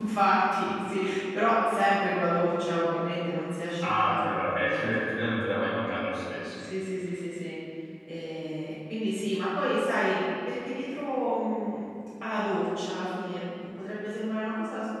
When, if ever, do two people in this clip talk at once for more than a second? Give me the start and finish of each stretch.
3.8-5.0

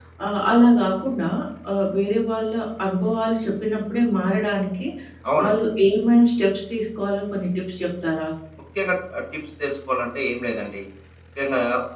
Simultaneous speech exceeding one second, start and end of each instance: none

